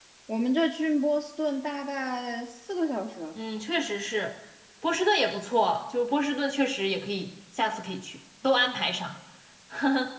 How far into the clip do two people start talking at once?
none

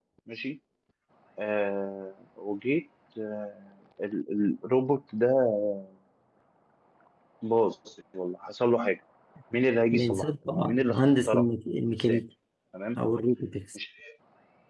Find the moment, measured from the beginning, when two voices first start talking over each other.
10 s

